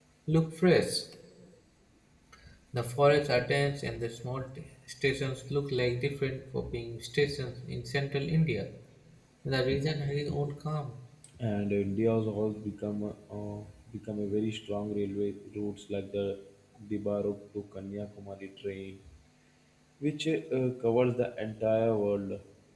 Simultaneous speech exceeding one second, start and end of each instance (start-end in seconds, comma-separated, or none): none